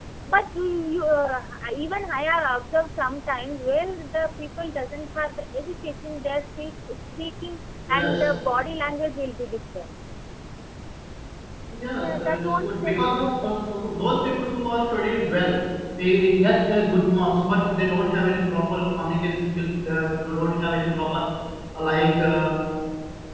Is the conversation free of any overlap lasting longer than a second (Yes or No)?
No